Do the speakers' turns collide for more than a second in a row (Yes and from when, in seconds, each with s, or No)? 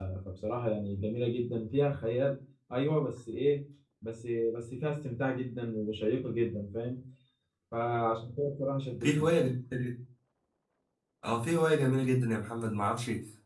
No